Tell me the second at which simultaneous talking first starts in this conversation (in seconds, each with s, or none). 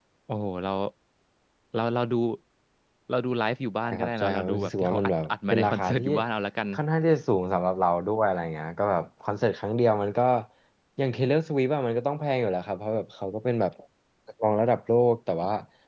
3.9 s